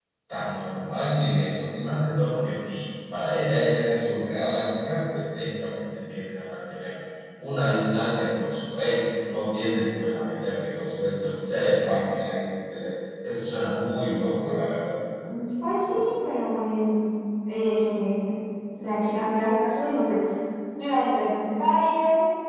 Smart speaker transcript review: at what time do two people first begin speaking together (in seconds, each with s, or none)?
none